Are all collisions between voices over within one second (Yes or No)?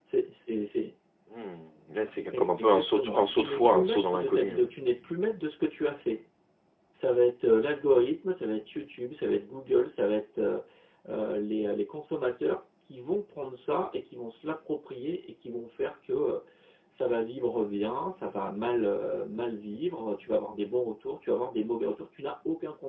No